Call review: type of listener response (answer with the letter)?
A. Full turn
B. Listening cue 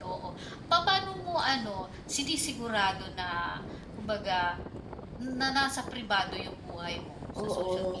A